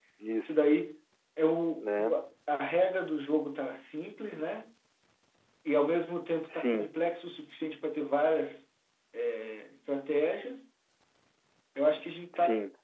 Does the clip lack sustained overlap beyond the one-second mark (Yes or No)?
Yes